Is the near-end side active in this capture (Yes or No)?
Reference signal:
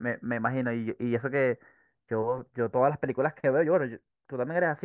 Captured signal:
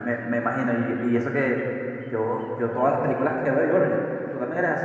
No